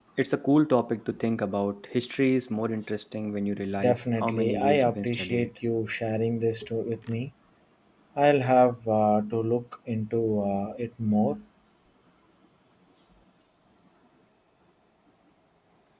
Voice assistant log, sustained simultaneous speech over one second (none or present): present